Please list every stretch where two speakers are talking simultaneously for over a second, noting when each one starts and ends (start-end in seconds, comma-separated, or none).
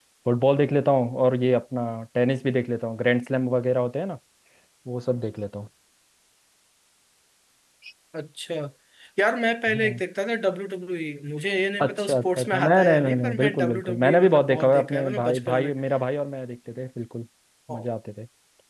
11.8-15.7